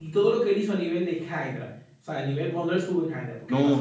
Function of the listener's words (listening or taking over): taking over